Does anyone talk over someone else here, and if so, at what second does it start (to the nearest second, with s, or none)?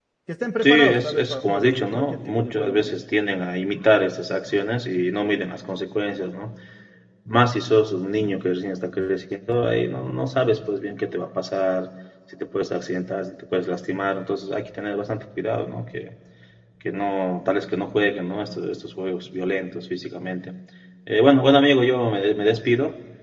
1 s